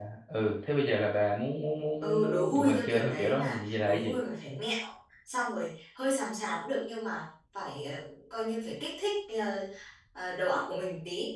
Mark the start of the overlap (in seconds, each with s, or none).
2.0 s